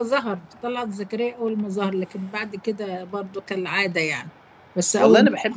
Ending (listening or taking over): taking over